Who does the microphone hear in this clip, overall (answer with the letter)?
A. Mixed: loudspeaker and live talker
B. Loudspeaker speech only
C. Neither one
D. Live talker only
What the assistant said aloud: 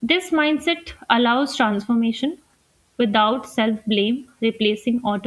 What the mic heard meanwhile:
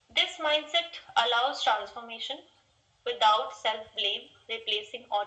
B